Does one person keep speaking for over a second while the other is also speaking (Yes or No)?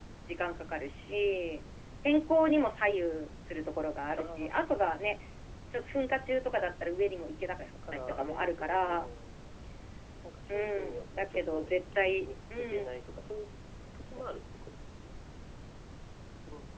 Yes